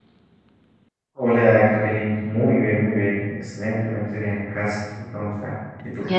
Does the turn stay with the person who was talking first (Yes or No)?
No